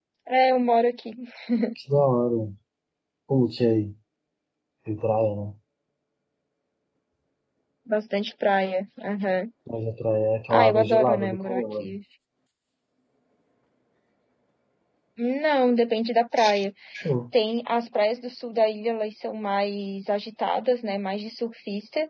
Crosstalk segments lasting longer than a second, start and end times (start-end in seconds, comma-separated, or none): 10.5-11.9